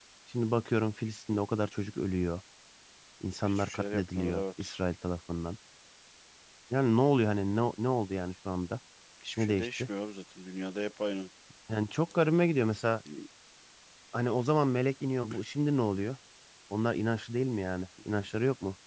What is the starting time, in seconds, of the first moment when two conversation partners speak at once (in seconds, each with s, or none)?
3.4 s